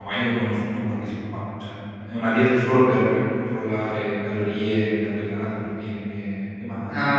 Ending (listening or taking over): taking over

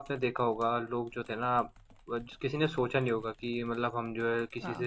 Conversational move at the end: listening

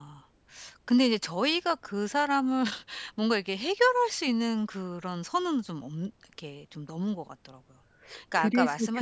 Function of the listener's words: taking over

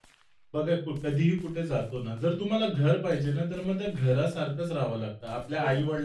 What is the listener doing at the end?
listening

